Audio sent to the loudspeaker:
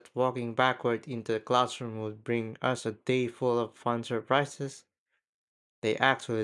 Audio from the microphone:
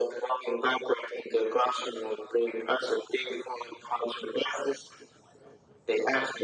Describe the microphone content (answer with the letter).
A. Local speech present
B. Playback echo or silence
B